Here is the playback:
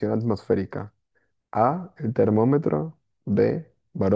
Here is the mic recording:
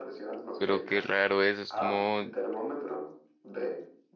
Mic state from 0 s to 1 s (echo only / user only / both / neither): both